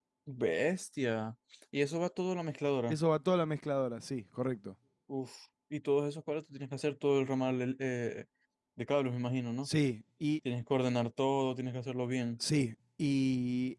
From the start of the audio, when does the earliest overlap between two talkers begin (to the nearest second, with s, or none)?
none